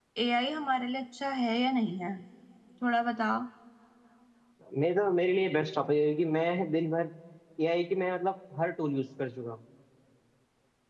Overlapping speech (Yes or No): No